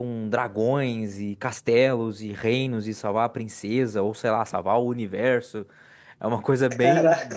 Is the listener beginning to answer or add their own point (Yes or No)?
No